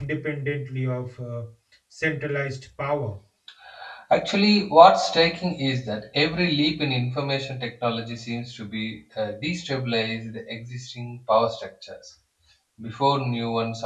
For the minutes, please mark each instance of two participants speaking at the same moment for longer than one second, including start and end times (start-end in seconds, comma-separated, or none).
none